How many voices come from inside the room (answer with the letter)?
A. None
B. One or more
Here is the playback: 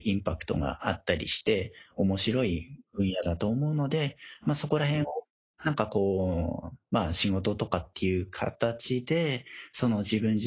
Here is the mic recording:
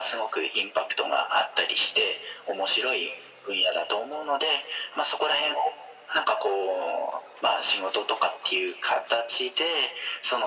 A